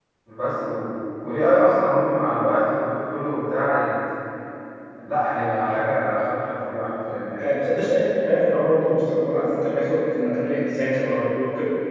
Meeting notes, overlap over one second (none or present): none